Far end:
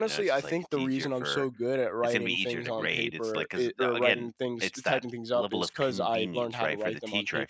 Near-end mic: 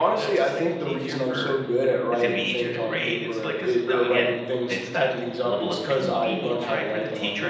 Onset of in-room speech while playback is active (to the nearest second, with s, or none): none